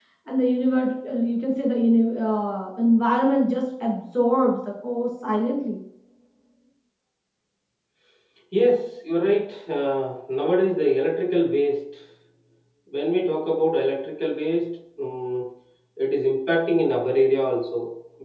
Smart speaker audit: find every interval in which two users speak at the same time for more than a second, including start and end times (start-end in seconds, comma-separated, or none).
none